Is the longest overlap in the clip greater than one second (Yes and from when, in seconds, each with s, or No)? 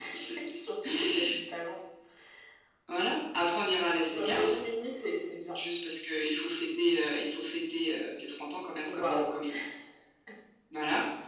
No